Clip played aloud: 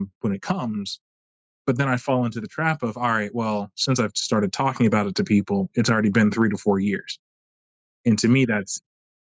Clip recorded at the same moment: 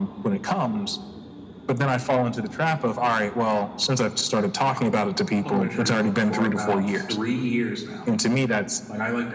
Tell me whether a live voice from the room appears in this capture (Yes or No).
Yes